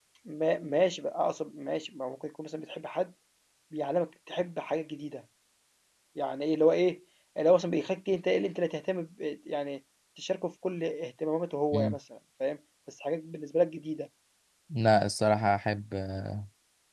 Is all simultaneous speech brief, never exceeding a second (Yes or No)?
Yes